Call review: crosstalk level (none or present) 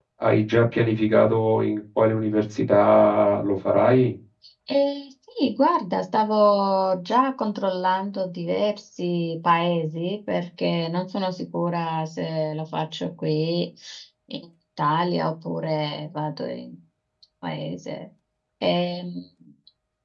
none